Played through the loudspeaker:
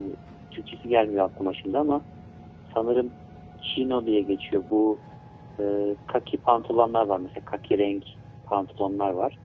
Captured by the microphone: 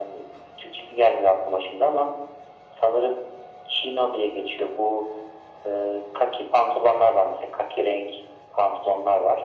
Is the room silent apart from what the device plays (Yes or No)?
Yes